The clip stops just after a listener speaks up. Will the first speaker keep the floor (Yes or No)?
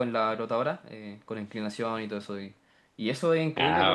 Yes